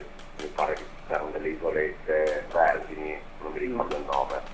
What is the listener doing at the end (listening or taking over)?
listening